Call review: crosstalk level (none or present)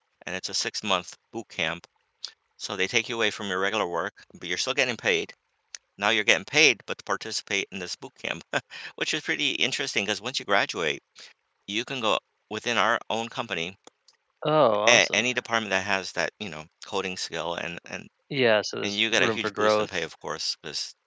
present